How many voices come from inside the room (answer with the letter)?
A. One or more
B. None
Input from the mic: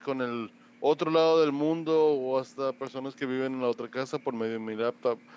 A